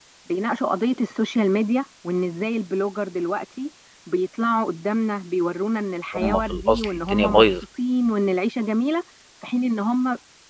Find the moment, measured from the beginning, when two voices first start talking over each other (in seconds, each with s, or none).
6.1 s